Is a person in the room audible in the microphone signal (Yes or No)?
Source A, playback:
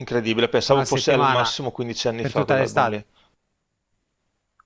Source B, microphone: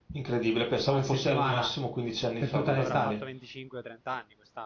Yes